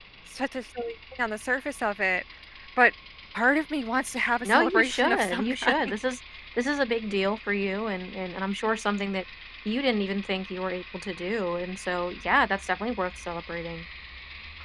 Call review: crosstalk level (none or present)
present